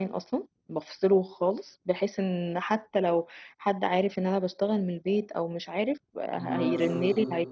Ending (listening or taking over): listening